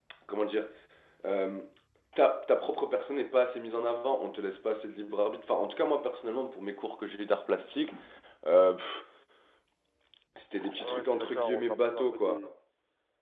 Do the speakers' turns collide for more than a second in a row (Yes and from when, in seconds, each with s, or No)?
Yes, from 10.8 s